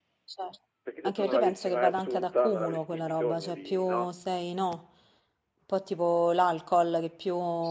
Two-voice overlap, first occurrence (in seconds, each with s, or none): 1.0 s